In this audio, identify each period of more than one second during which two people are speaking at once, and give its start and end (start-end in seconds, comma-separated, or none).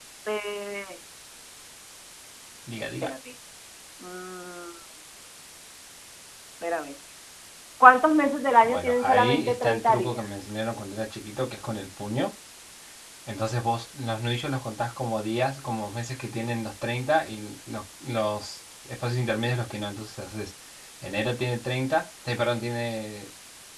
8.6-10.2